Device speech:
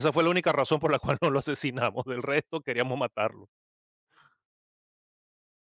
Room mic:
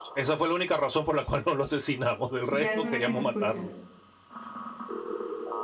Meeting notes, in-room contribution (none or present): present